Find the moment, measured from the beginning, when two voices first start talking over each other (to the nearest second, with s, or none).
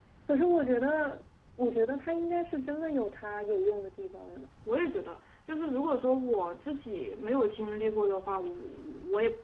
none